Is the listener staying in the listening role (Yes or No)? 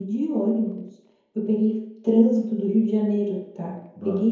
Yes